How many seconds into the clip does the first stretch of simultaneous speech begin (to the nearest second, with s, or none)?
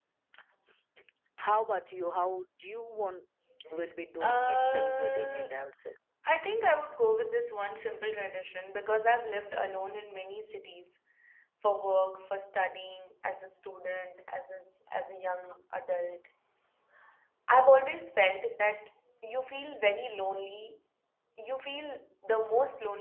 4 s